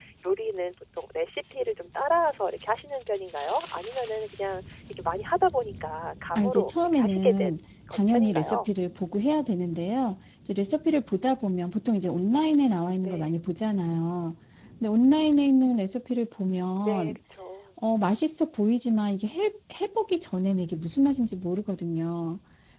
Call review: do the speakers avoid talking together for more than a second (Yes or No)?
No